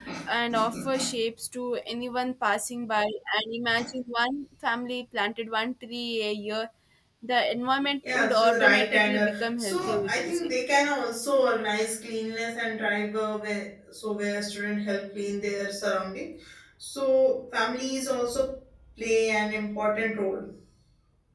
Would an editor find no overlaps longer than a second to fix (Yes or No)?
No